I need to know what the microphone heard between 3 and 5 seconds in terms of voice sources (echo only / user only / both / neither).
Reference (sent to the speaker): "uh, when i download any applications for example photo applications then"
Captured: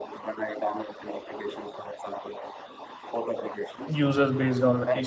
both